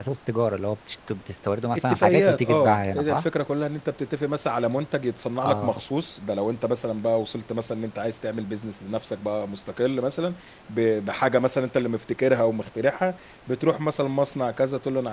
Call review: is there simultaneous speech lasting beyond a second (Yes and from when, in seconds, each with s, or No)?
Yes, from 1.7 s